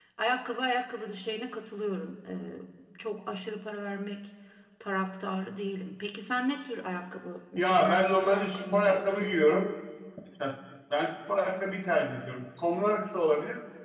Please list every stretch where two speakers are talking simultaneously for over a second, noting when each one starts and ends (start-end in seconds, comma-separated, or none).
7.6-9.7